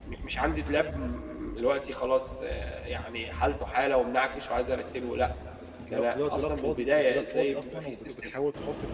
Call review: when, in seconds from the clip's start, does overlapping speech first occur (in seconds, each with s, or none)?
5.9 s